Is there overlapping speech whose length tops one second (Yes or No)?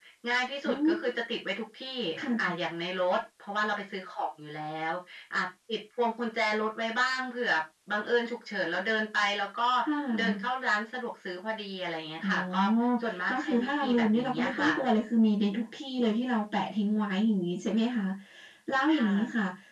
Yes